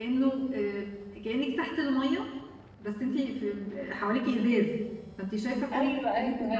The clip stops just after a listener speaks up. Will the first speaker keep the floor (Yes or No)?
No